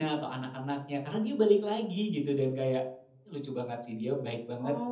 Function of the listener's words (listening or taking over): taking over